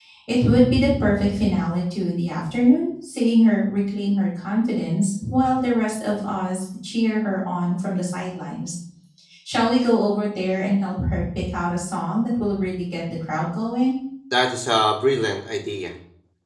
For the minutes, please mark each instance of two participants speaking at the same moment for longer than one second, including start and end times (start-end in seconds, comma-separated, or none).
none